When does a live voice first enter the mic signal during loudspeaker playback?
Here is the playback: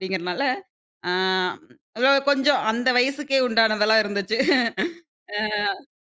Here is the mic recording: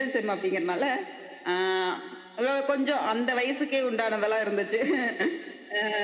none

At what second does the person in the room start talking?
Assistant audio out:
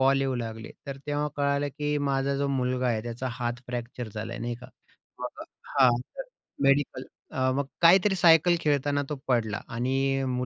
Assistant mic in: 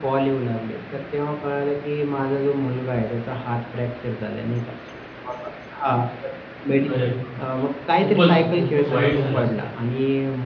6.8 s

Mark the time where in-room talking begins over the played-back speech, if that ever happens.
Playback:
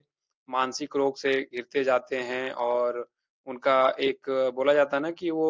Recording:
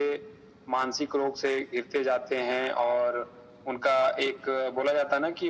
none

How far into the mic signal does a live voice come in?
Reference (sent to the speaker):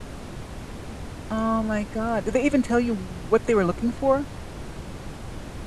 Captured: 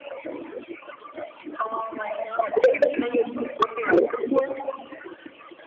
none

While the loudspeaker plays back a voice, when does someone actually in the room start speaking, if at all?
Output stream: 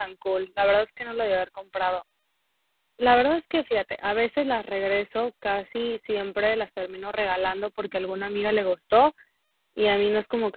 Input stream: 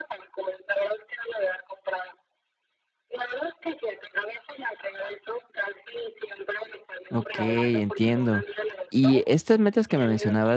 7.1 s

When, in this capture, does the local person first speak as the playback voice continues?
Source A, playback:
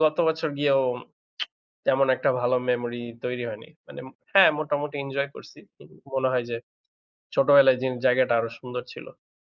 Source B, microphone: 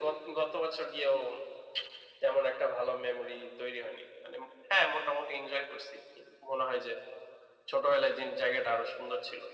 none

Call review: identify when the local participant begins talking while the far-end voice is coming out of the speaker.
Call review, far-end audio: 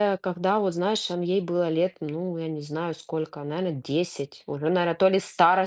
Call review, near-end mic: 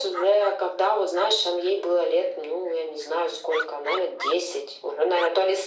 none

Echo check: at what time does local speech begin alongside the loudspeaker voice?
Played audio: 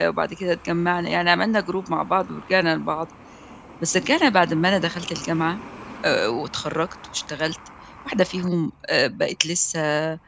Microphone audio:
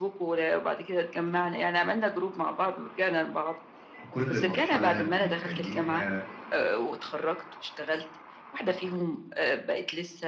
4.0 s

